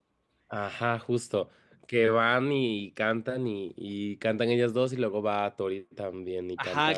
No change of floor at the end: No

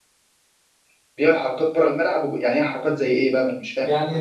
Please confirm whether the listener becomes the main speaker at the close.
Yes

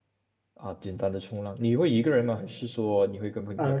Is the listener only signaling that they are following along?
No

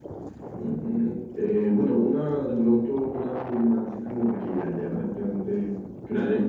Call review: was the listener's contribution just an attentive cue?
Yes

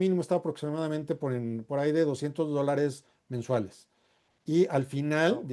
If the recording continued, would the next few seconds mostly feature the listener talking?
No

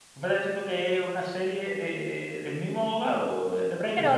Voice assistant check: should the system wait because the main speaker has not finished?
No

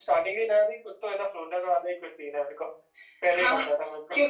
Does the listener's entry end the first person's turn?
Yes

